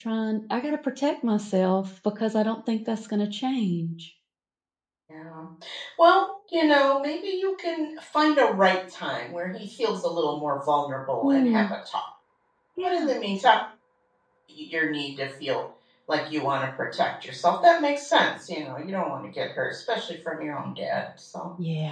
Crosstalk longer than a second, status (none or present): none